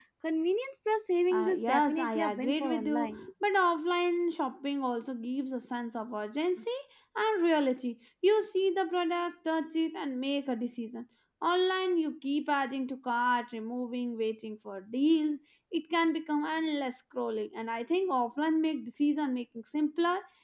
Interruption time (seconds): 1.3 s

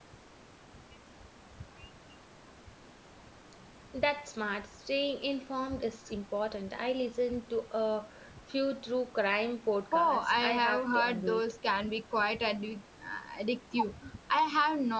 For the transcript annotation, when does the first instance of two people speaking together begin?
9.9 s

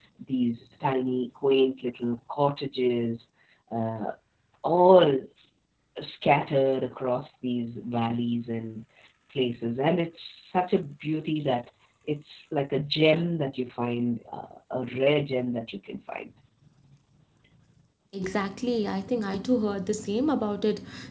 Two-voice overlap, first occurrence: none

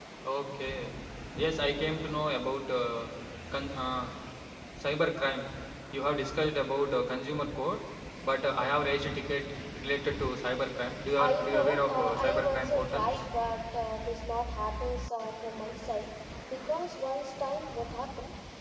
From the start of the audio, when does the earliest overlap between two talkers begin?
11.2 s

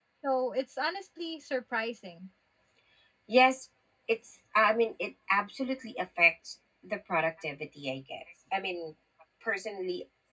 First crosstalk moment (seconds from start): none

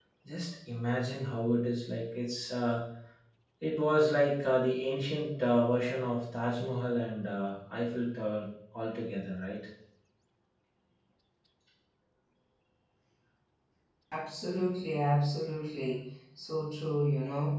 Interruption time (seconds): none

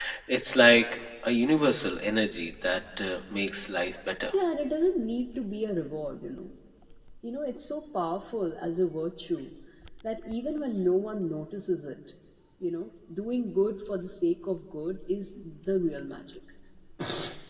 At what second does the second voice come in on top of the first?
none

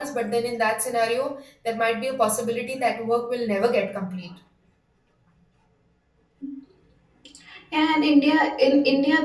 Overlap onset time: none

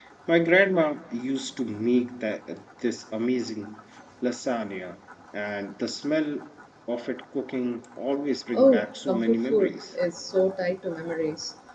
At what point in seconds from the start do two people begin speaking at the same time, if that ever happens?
8.5 s

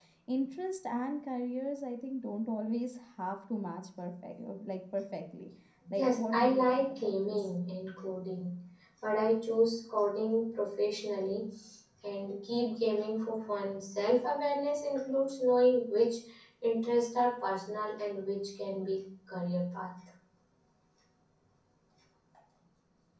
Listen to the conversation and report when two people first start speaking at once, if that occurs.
6.0 s

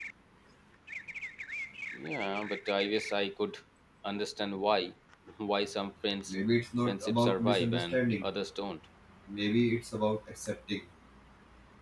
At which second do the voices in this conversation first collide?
6.9 s

